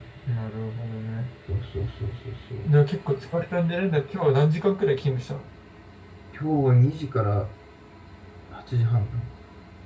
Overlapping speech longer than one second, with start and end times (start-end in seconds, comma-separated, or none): none